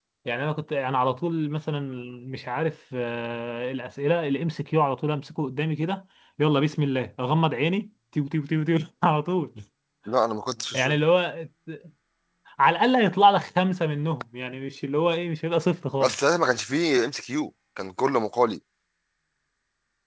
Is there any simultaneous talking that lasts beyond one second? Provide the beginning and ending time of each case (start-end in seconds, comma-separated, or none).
none